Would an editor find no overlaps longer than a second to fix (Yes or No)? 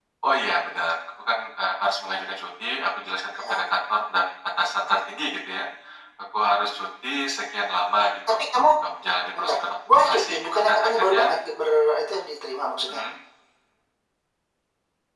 No